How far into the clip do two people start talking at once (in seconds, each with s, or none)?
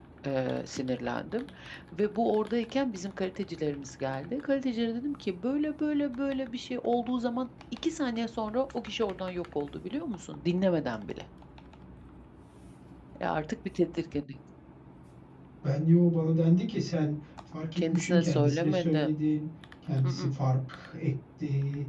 17.8 s